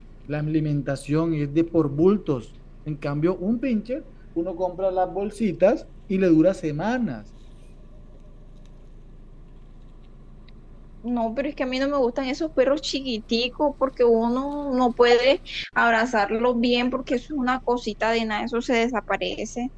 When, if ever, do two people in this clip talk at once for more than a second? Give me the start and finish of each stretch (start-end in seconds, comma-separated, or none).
none